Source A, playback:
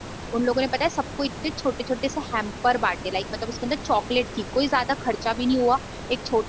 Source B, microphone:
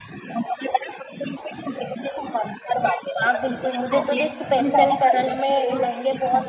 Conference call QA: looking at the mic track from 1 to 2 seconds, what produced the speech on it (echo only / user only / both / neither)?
echo only